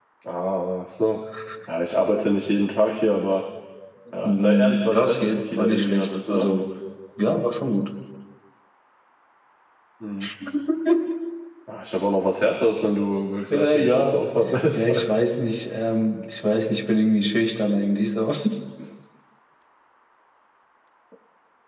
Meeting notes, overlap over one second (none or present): present